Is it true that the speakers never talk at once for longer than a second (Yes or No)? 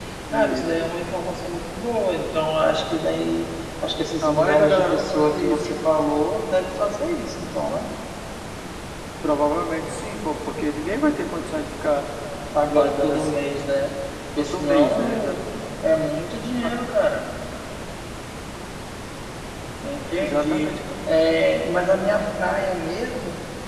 No